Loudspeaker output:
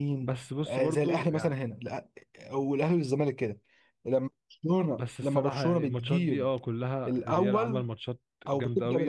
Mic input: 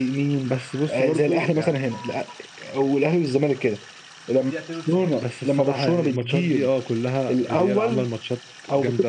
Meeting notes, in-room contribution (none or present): present